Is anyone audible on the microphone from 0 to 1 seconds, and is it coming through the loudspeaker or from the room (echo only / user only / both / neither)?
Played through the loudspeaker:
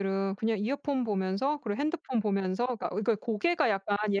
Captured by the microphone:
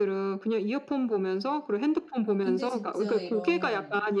echo only